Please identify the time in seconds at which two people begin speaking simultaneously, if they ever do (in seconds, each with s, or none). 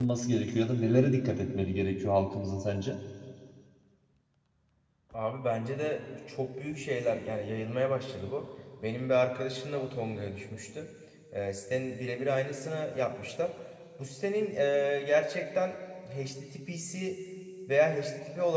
none